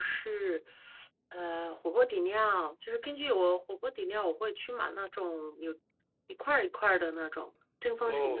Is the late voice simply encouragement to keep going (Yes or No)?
No